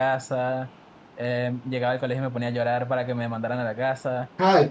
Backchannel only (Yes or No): No